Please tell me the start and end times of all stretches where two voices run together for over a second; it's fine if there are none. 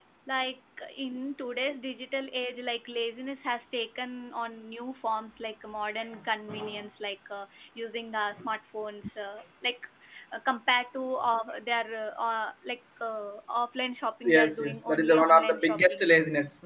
14.2-16.1

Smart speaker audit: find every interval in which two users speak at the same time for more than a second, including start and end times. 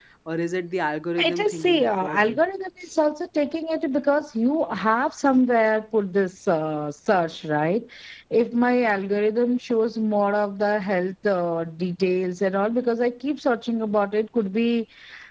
1.2-2.4

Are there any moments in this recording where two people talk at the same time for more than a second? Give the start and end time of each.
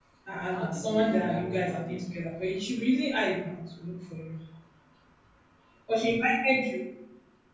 0.5-2.1

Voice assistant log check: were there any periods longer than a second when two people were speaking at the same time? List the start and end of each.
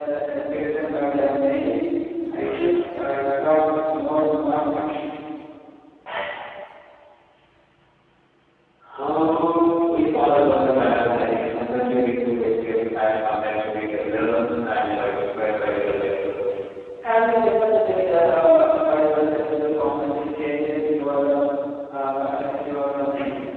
none

